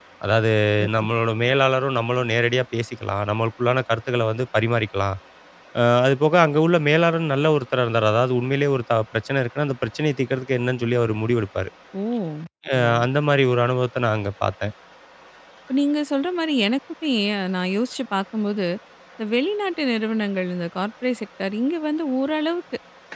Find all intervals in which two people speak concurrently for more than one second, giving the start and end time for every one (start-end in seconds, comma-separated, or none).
none